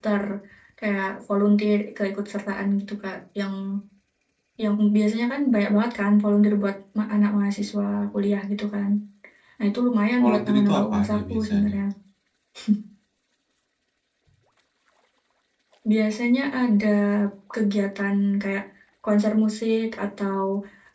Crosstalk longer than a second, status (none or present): present